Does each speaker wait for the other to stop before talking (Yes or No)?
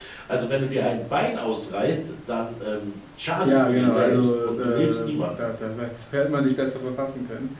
No